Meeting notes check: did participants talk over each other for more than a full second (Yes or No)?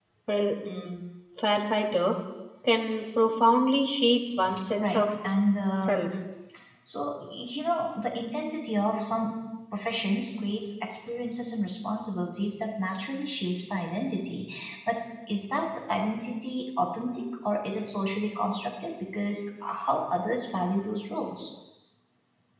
No